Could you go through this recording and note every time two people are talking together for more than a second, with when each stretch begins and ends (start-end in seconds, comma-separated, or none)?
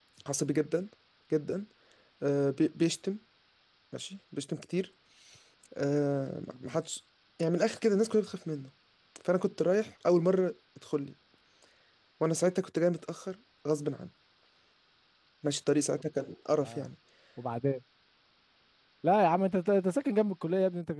none